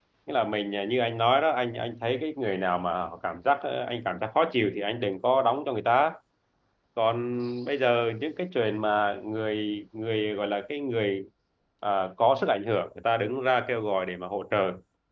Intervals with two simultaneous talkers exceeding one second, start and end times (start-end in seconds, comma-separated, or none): none